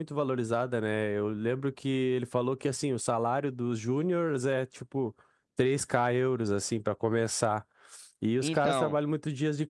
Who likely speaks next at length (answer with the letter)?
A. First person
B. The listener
A